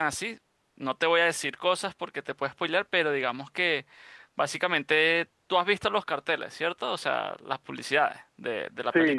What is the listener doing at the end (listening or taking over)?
taking over